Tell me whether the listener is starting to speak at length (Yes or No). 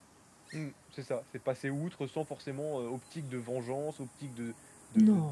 No